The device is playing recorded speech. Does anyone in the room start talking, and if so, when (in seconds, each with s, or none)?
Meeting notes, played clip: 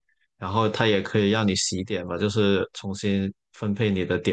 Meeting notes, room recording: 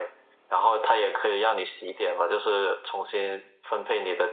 none